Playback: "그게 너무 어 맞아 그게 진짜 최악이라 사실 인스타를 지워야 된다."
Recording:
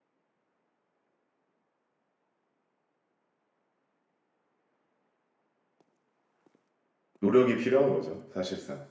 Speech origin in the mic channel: user only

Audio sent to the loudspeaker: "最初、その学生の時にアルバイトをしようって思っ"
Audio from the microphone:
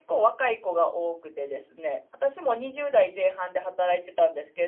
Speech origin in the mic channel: user only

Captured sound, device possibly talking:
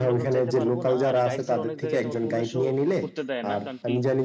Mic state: both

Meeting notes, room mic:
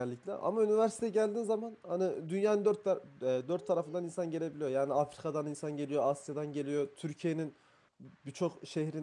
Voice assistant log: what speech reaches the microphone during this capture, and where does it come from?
user only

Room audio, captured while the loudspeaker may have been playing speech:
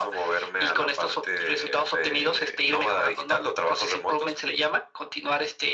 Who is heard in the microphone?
echo only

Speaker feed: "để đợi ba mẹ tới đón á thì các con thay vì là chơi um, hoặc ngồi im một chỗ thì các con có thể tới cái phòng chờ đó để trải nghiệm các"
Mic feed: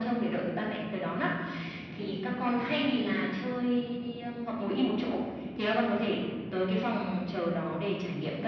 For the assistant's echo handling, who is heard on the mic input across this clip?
both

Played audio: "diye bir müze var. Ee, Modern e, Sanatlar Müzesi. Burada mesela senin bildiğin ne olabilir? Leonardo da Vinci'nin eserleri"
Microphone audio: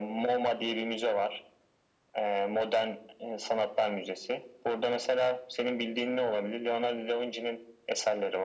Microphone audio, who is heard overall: echo only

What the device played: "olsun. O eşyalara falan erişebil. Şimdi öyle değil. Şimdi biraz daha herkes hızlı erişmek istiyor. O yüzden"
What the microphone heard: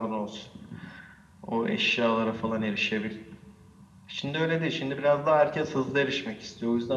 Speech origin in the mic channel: echo only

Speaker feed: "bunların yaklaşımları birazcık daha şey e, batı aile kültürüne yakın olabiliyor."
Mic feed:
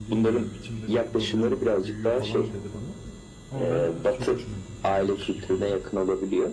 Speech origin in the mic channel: both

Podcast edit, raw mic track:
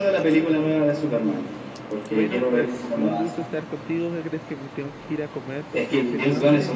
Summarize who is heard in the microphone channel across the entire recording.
both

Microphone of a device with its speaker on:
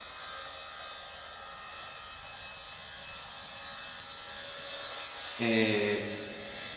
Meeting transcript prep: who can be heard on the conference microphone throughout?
user only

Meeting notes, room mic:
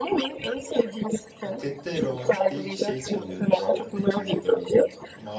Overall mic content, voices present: both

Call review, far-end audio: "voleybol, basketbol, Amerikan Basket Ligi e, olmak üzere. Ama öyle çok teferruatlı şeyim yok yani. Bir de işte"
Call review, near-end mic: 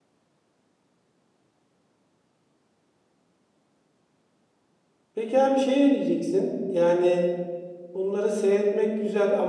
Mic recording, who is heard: user only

